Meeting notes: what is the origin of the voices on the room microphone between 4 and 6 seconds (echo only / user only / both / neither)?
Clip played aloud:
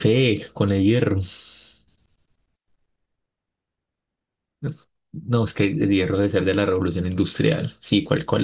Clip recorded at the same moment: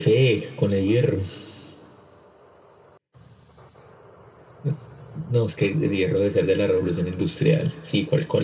echo only